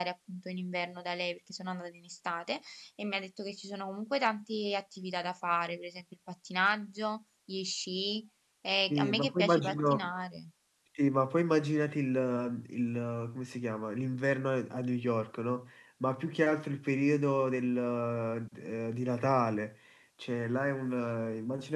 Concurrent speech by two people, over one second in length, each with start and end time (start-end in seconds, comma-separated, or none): 8.9-10.1